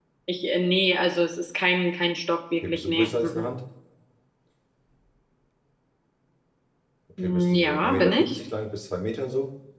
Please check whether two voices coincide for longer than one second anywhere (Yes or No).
Yes